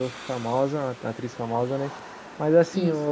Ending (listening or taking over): listening